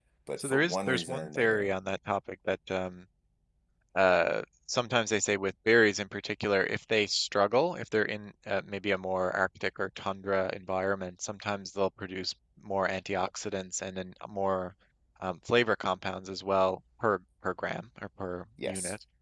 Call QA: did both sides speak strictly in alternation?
No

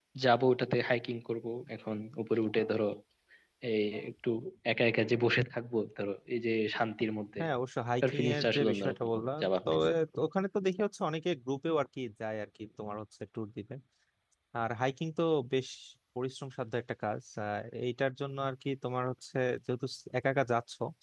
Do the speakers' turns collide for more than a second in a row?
Yes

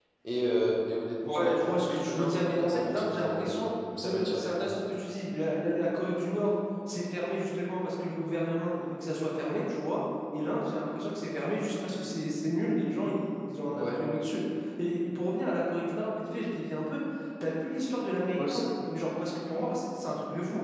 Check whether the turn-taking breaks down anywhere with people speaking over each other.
Yes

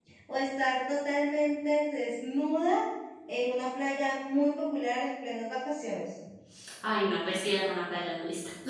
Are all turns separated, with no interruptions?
Yes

